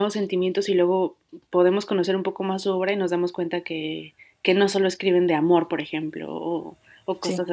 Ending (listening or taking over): listening